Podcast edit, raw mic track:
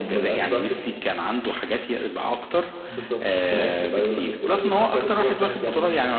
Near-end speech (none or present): none